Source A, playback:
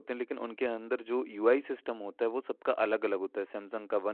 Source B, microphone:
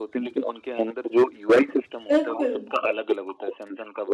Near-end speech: present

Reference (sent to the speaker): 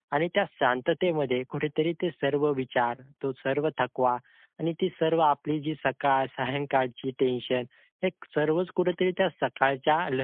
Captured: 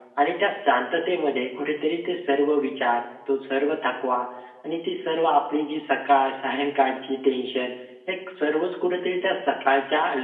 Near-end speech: none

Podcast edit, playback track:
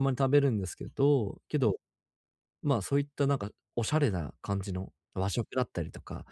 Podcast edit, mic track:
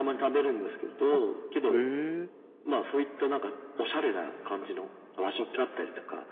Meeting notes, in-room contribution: present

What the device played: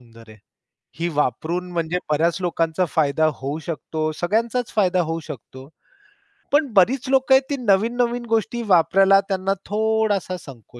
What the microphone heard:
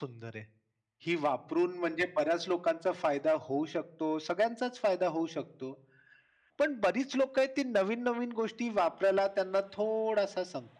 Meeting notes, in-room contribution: none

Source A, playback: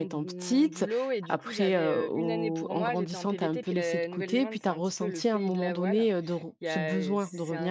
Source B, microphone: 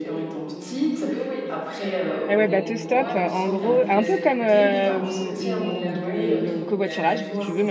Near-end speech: present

